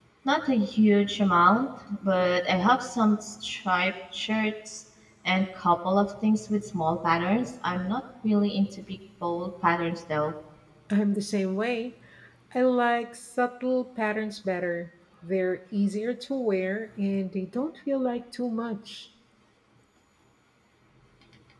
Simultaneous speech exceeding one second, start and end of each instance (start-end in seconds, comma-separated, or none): none